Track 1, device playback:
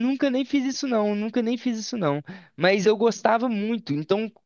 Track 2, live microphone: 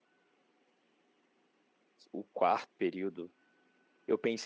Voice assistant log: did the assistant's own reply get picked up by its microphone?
No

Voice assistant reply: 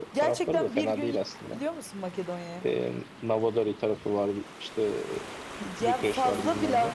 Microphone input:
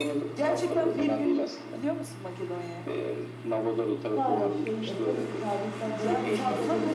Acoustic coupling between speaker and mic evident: Yes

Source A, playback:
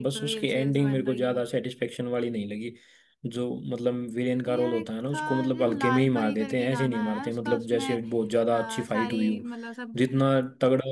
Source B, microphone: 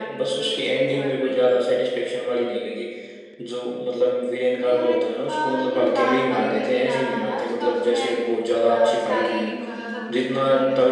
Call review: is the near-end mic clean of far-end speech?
No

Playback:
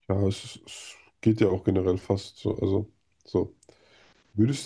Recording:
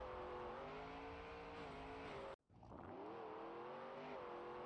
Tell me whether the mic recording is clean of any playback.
Yes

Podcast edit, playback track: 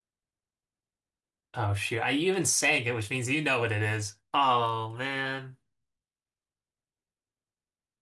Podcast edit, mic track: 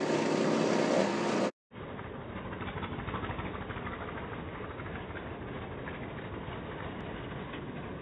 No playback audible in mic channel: Yes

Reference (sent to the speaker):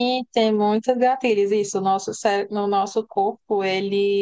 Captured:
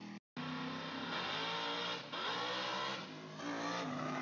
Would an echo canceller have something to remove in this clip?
No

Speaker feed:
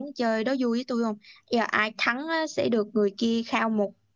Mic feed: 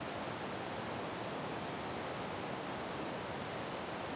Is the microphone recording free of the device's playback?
Yes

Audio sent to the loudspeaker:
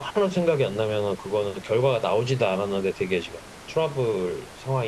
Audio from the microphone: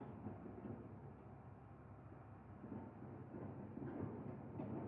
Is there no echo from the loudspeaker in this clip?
Yes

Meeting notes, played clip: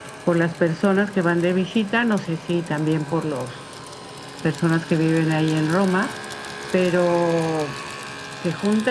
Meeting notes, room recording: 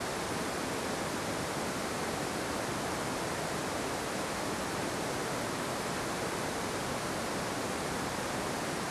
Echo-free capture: Yes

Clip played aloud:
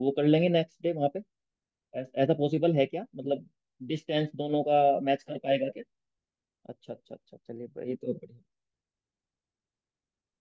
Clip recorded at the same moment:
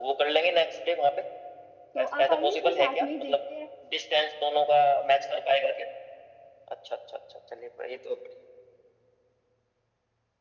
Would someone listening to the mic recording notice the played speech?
Yes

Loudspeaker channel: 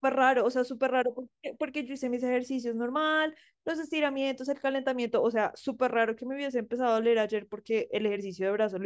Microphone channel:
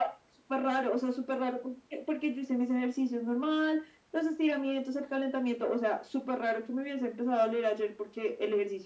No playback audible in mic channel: No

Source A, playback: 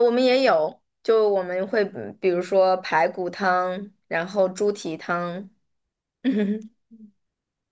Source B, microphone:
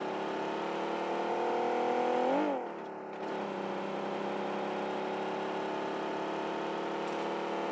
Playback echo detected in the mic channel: No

